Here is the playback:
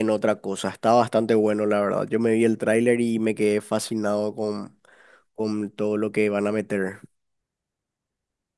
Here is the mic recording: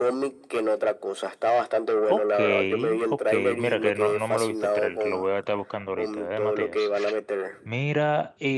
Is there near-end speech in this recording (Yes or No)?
Yes